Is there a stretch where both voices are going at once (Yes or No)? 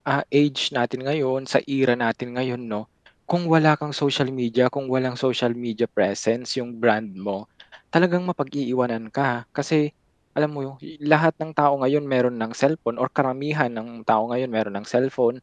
No